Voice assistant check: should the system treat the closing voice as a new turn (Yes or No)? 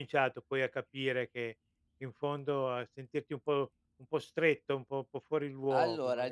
Yes